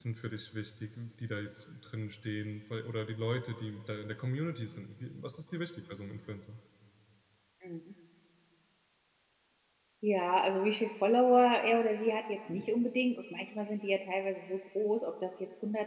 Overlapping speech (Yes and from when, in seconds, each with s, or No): No